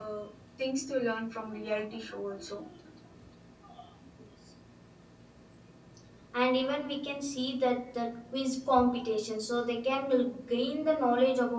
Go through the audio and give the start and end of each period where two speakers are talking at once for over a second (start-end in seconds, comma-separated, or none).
none